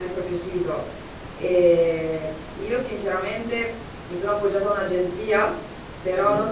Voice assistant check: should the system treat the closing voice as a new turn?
No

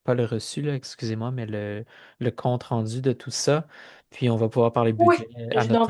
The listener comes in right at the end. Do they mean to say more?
Yes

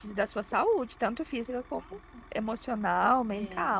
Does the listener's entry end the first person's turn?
Yes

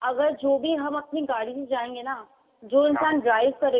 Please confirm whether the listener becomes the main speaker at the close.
No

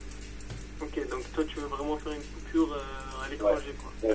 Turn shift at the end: Yes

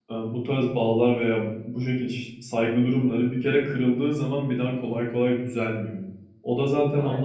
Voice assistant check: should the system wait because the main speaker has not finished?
Yes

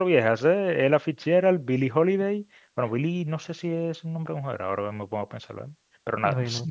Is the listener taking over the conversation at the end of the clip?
No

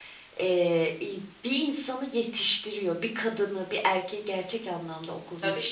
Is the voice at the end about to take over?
Yes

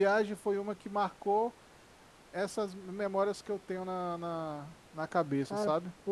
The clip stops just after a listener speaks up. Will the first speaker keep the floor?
No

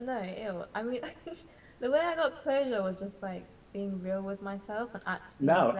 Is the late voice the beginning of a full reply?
Yes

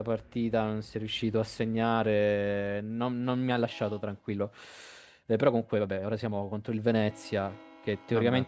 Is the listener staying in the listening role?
Yes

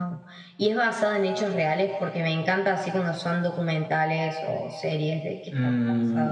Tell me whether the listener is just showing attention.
No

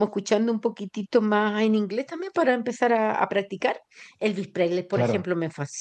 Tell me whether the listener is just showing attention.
Yes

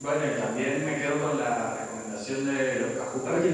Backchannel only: No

